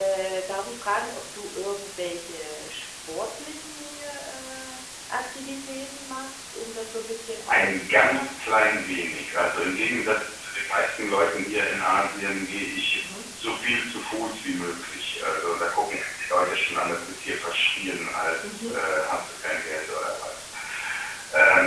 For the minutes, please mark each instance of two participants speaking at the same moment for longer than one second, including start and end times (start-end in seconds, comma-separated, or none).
7.5-8.8